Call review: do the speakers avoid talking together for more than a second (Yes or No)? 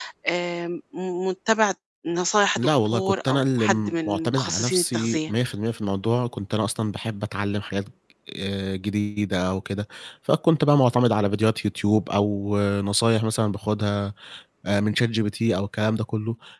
No